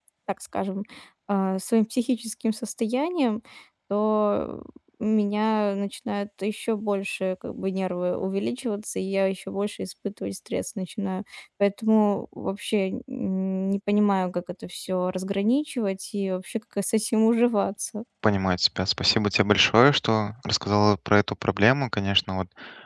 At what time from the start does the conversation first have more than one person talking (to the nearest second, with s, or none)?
none